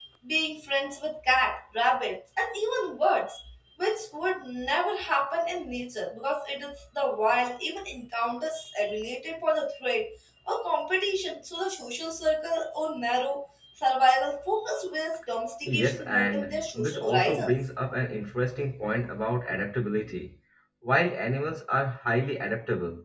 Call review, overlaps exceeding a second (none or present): present